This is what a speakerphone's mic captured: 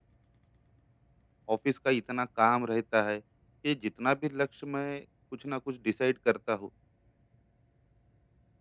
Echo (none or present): none